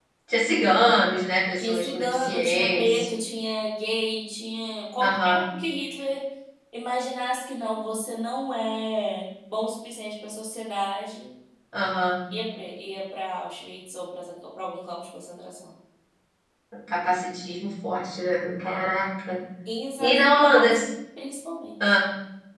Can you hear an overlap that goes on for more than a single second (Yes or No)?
Yes